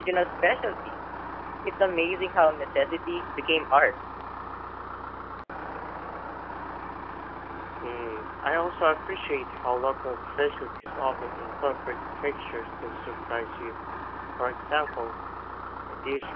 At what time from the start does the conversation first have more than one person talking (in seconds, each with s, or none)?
none